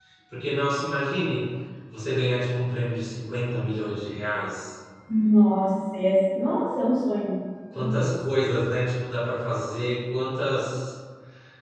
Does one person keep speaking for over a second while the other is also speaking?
No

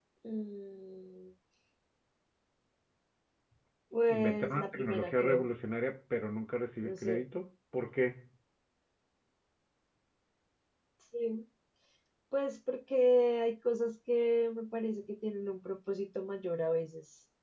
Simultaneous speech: Yes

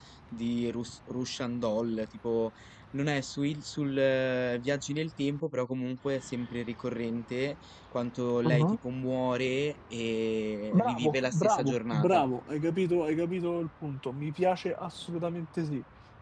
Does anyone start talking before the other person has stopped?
Yes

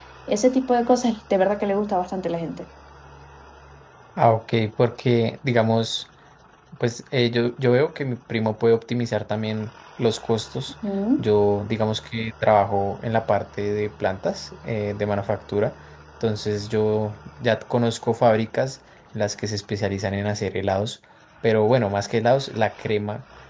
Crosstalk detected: No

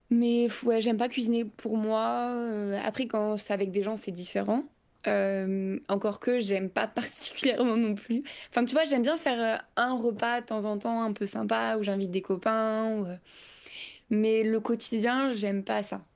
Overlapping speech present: No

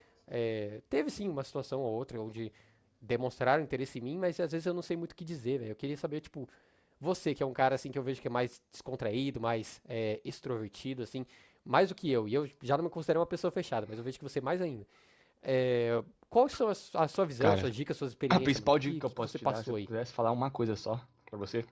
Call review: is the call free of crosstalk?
No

